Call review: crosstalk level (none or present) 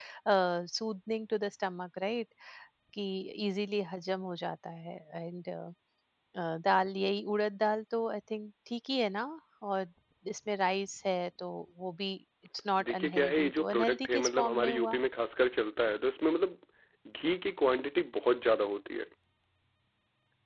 present